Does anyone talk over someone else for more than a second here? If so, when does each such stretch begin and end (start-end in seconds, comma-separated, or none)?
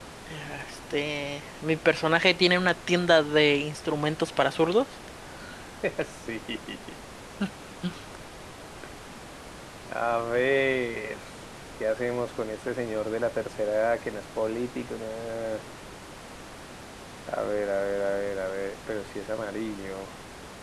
none